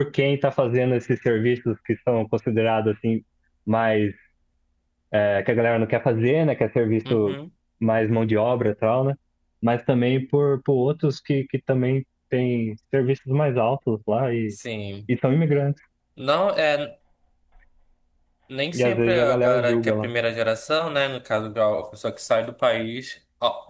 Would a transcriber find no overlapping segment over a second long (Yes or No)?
No